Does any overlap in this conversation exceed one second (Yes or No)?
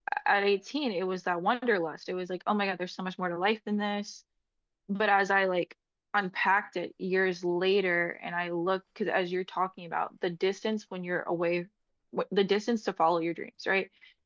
No